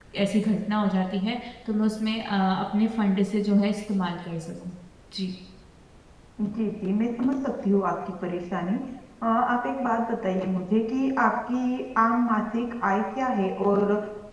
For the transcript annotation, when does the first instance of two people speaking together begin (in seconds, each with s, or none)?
none